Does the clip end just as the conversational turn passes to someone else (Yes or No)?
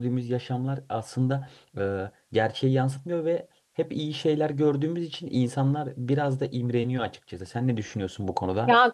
Yes